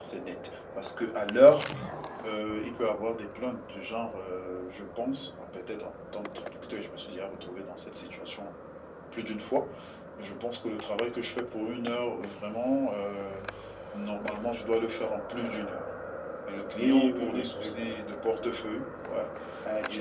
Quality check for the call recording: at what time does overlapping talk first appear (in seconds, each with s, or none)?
16.8 s